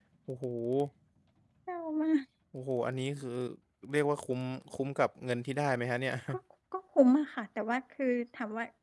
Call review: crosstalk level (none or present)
none